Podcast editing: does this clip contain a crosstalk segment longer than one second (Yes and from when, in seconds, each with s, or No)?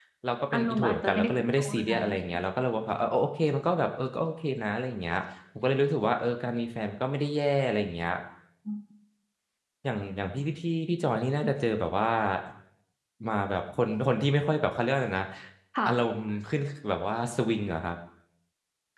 Yes, from 0.5 s